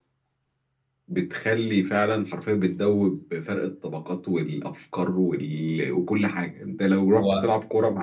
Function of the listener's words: listening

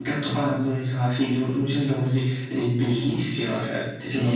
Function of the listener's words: taking over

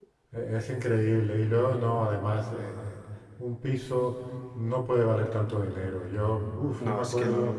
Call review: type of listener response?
taking over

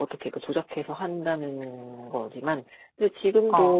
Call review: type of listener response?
listening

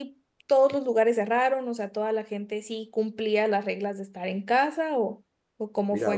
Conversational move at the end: taking over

